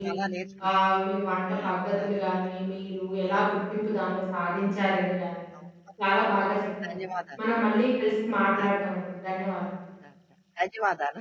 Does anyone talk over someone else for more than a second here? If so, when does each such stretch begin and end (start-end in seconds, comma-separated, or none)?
none